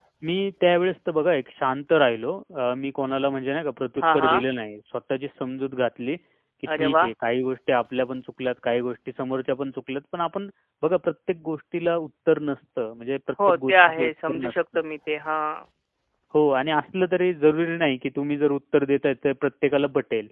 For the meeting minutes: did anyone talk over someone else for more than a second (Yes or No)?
Yes